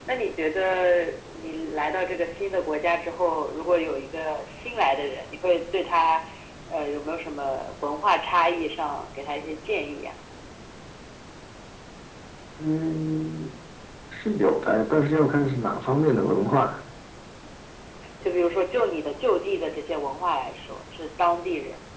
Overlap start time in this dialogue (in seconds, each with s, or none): none